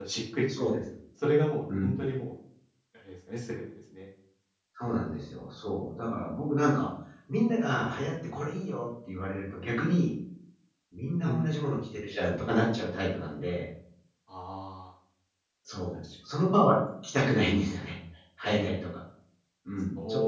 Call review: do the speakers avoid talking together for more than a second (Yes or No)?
Yes